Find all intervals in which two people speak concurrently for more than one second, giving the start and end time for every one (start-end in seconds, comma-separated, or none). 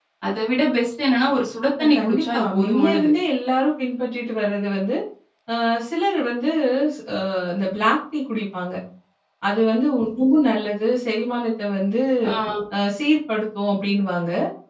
1.8-3.1